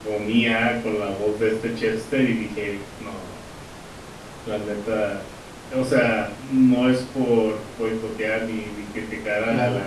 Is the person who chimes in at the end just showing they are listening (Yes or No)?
Yes